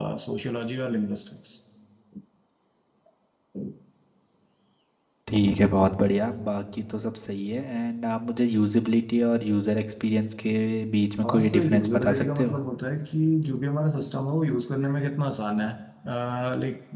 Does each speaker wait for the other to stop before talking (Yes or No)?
No